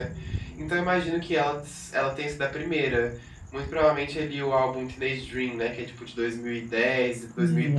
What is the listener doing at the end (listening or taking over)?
listening